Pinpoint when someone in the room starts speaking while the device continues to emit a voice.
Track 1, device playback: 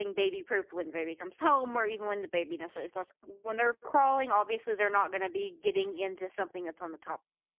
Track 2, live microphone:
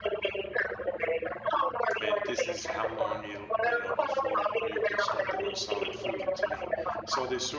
2 s

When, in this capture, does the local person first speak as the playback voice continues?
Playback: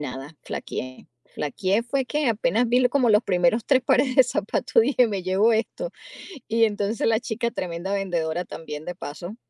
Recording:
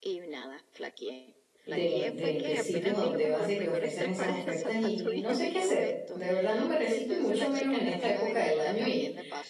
2 s

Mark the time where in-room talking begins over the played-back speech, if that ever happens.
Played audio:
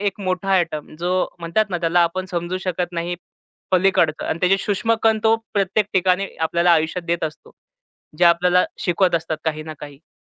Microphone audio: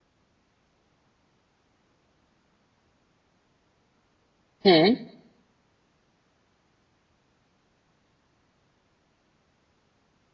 5 s

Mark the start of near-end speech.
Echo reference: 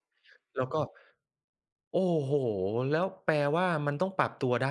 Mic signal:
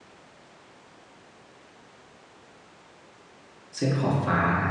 4 s

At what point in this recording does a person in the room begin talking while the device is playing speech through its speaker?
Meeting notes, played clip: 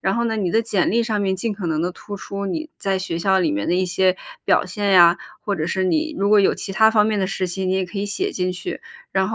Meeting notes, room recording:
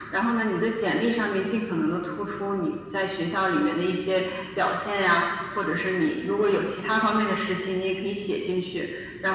none

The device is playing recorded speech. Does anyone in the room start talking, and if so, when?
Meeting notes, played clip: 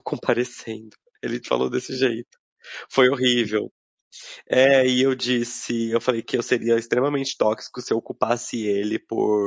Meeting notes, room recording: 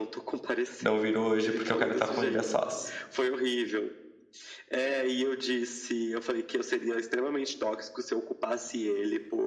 1 s

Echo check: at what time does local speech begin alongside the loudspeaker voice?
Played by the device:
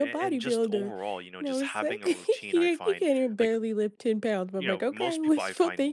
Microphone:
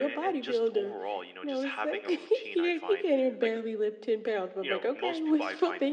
none

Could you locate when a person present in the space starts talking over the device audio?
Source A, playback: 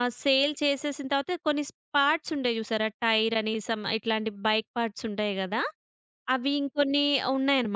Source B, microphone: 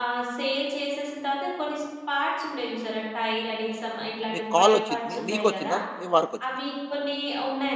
4 s

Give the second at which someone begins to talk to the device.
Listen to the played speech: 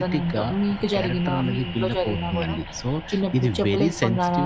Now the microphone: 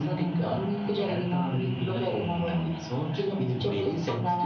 none

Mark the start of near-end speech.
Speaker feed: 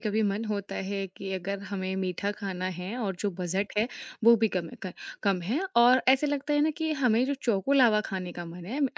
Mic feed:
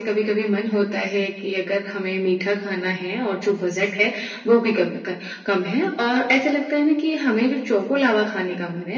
none

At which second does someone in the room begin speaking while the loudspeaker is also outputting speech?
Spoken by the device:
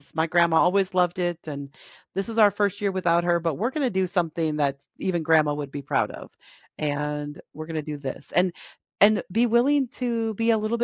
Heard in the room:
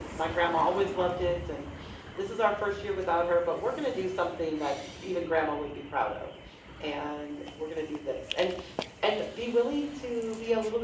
none

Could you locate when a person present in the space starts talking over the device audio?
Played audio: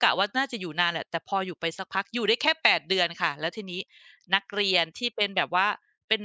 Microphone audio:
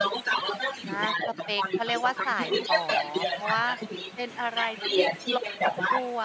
1 s

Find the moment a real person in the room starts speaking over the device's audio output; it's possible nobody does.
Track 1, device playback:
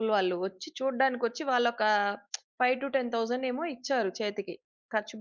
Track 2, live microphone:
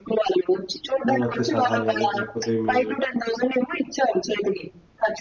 1 s

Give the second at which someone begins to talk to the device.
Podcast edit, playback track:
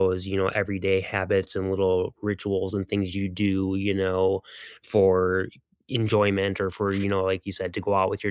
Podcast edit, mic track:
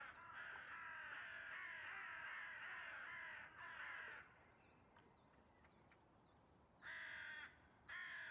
none

